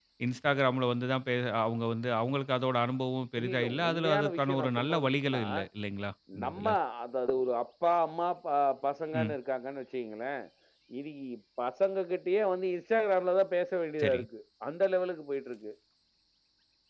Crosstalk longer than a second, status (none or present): present